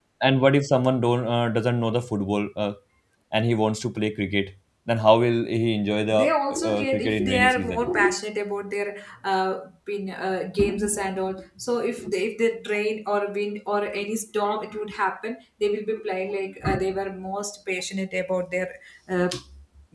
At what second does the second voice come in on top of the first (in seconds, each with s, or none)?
6.1 s